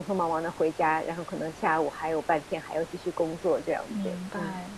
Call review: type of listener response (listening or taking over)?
taking over